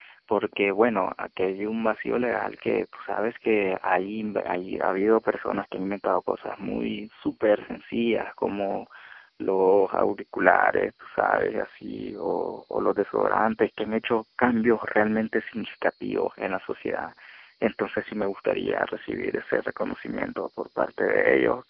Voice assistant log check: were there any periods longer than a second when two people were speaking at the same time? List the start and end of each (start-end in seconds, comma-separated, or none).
none